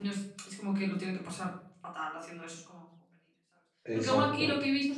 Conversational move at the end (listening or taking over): listening